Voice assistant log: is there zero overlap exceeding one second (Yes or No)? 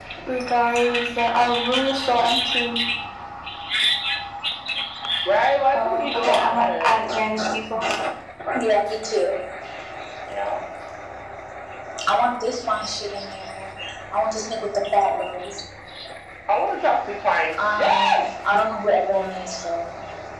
No